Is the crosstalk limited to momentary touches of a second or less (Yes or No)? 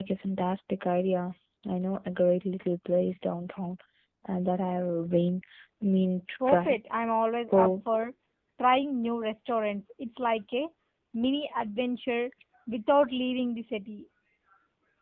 Yes